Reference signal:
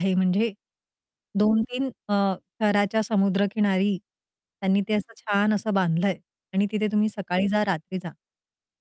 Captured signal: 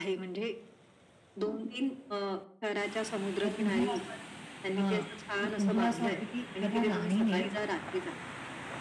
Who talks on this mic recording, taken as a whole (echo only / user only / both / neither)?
both